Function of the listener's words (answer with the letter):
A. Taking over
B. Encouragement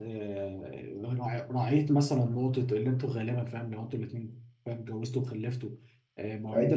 B